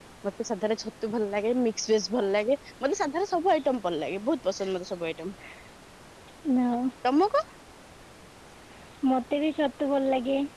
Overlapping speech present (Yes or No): No